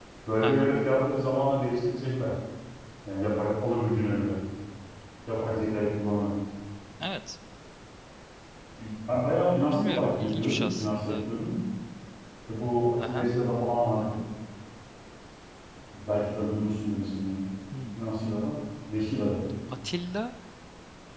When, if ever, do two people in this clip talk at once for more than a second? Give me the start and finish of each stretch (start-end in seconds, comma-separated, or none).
9.7-11.2